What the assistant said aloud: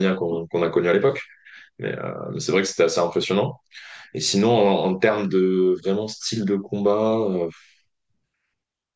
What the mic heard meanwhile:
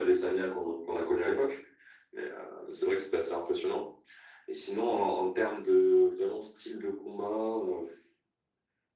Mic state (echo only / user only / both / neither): echo only